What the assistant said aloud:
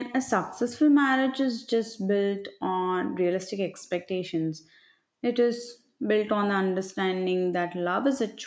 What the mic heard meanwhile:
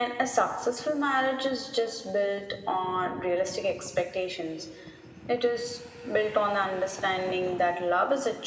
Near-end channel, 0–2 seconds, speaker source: echo only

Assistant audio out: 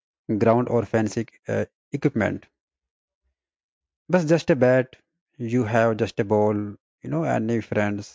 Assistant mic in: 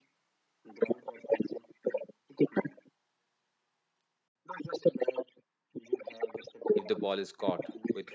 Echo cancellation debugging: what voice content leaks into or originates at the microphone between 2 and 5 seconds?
echo only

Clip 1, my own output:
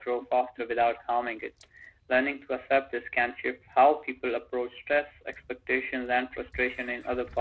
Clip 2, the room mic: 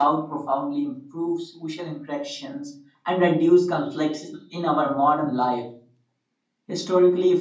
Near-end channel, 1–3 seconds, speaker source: user only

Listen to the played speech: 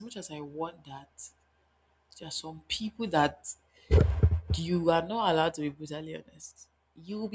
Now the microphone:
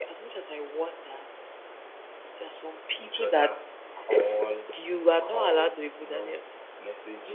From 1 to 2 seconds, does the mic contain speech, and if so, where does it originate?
echo only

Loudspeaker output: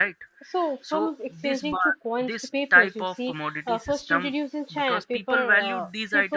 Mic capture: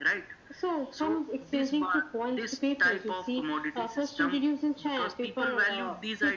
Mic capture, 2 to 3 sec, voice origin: echo only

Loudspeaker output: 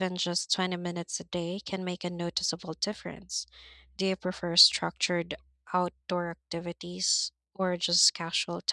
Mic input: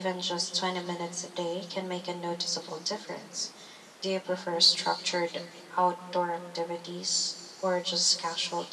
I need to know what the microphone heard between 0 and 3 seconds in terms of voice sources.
echo only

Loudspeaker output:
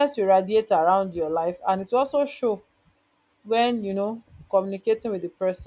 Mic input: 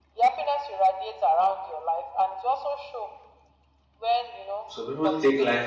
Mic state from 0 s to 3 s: echo only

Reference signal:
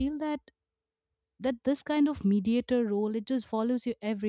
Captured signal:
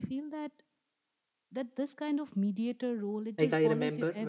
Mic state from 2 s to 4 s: both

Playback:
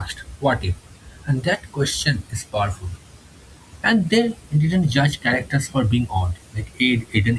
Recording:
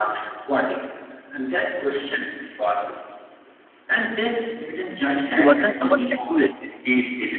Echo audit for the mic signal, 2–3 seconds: echo only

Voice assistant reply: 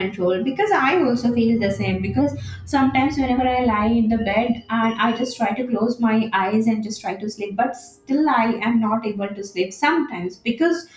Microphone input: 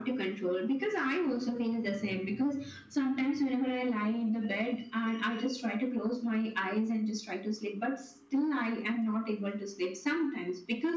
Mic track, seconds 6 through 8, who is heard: echo only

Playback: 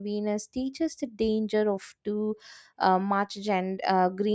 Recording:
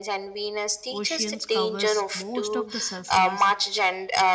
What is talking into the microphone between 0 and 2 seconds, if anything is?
both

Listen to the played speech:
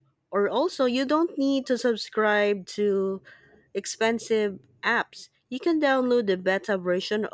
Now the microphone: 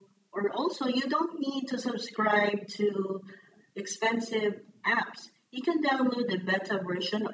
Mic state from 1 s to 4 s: echo only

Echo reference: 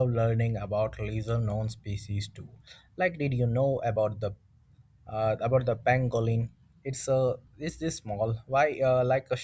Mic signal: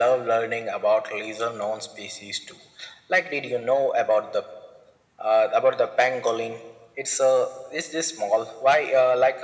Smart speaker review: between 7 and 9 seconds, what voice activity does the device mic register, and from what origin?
echo only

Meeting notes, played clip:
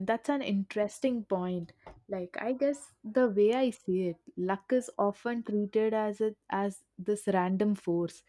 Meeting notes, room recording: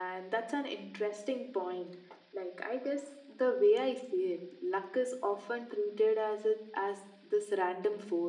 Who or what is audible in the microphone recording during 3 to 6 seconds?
echo only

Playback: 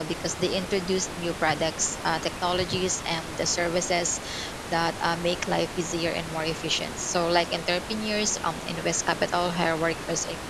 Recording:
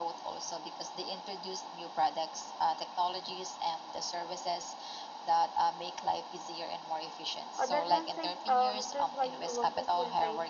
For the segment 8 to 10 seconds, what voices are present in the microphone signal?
both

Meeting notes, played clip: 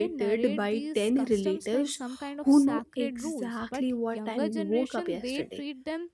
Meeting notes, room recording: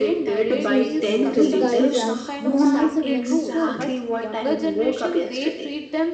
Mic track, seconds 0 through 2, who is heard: both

